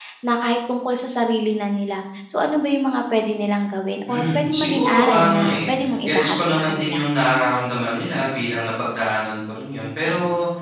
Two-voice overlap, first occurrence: 4.1 s

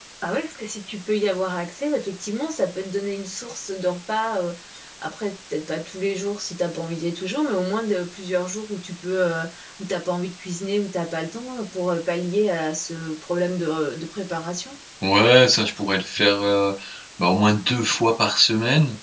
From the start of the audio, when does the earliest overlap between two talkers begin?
none

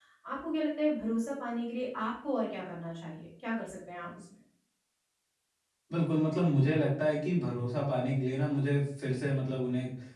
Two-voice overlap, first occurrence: none

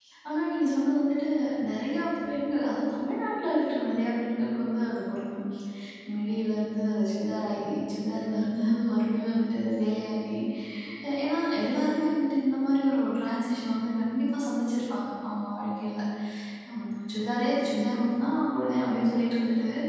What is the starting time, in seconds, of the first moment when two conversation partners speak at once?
none

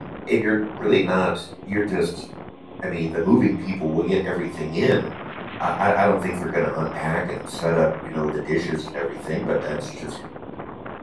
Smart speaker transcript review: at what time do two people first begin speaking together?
none

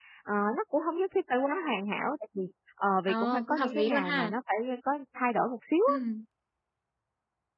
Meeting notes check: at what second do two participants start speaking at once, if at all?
3.1 s

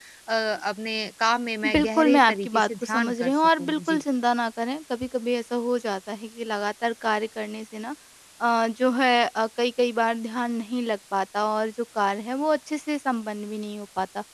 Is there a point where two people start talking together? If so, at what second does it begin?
1.6 s

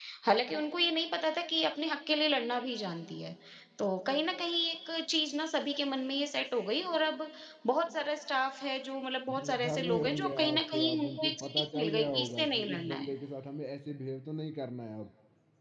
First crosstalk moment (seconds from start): 9.3 s

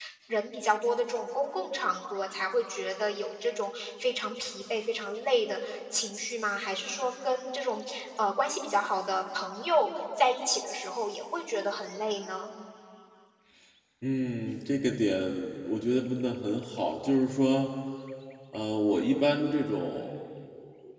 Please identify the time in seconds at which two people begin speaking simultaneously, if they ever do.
none

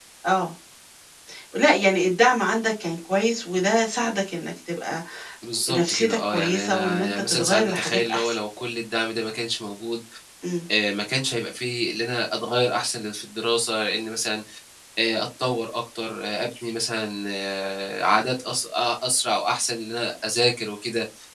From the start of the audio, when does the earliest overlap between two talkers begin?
5.7 s

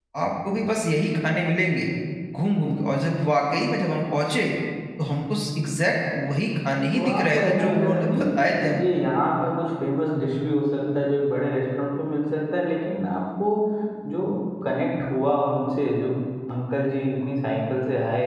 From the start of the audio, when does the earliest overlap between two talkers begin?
6.9 s

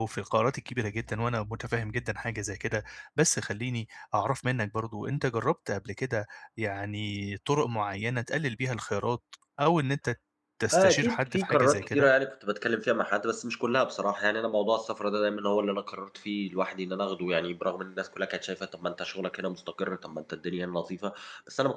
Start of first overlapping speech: 10.7 s

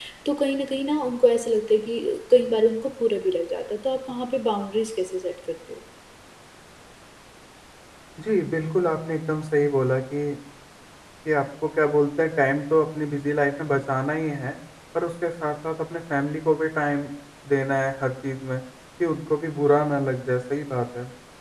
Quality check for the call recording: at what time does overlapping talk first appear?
none

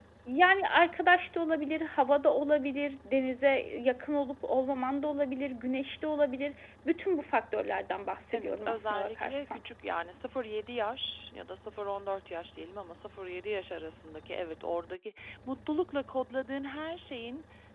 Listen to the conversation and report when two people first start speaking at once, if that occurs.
8.3 s

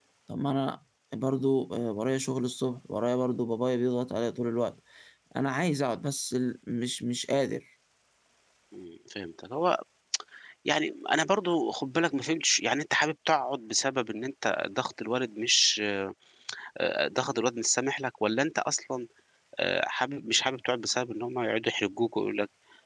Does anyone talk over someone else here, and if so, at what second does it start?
none

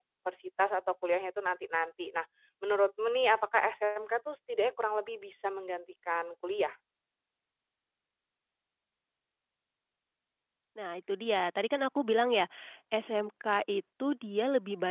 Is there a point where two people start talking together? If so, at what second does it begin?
none

